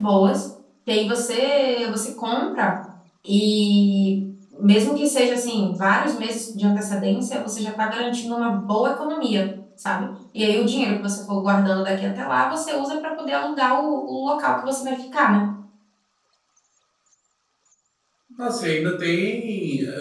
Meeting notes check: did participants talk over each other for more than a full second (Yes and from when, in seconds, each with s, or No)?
No